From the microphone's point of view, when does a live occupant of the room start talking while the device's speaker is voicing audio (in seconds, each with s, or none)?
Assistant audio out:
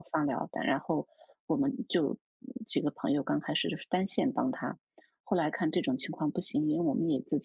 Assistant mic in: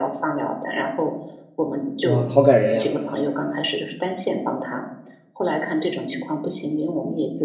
2.0 s